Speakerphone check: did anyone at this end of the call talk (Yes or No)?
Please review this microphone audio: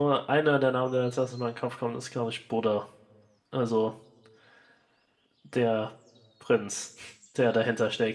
Yes